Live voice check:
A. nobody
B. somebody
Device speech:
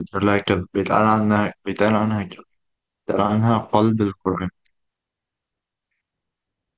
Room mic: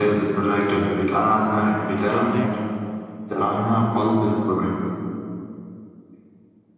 B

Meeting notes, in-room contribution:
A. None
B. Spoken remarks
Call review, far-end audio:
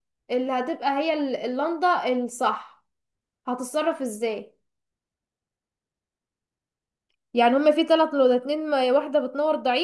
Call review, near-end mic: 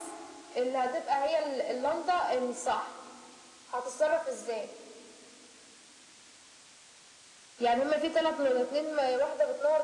A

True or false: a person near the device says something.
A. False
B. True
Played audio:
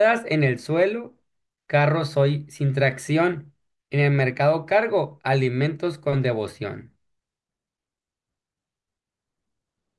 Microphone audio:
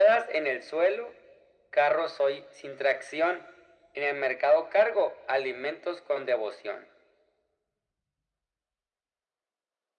A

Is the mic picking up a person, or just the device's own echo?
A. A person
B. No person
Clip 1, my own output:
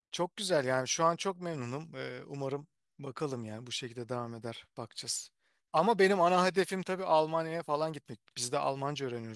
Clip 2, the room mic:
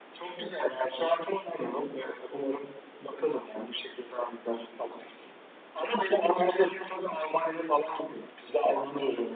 B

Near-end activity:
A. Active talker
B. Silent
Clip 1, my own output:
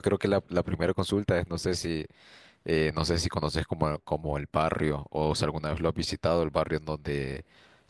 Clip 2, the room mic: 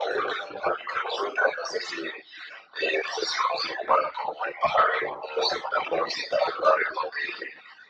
B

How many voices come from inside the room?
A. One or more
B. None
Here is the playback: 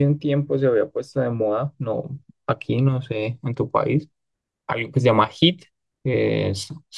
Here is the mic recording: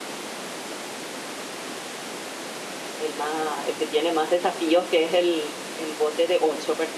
A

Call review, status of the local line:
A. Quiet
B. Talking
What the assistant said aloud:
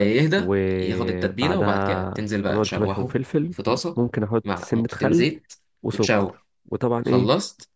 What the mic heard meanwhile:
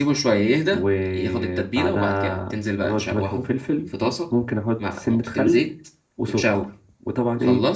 A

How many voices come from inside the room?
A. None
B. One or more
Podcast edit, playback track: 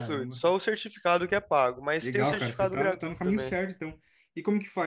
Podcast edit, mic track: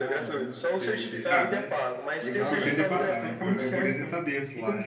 B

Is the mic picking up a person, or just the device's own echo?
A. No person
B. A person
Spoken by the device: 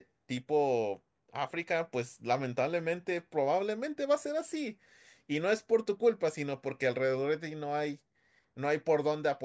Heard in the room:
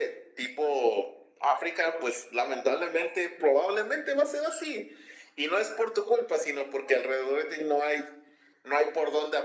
A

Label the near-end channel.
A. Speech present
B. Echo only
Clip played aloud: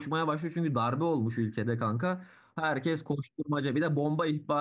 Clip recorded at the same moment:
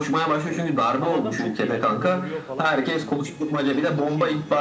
A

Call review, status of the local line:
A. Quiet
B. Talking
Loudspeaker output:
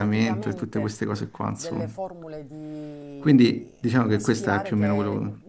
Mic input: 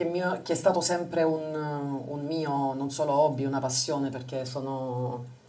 B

